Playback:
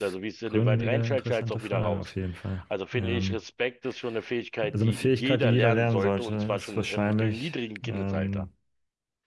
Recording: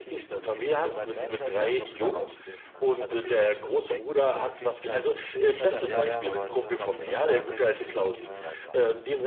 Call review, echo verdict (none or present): present